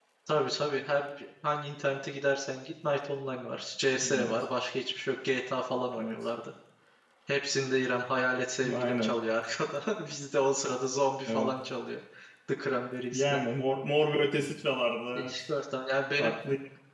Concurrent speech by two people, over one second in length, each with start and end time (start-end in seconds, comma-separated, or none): none